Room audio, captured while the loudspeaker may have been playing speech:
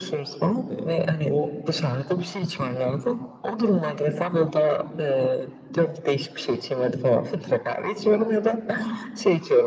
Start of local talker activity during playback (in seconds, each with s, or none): 0.7 s